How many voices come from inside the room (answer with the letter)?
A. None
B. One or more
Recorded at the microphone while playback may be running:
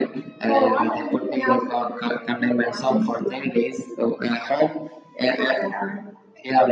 A